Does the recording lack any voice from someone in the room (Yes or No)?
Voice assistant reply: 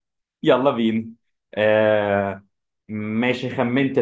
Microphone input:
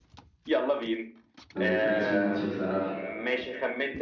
No